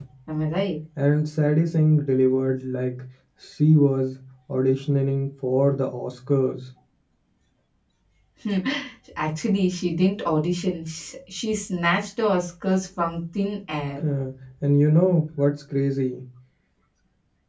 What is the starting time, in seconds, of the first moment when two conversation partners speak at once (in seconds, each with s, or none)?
none